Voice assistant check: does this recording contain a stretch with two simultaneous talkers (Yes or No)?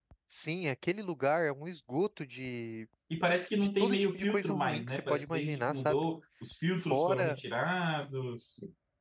Yes